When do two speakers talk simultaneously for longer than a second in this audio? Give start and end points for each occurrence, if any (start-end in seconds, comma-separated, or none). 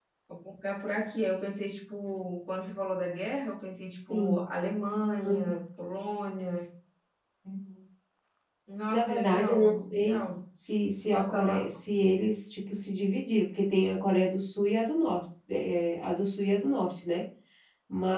8.9-10.2